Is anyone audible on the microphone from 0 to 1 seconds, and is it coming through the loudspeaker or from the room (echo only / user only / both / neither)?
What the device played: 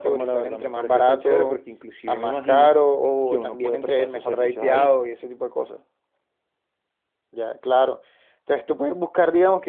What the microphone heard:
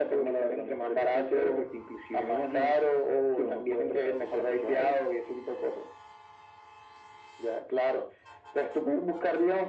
echo only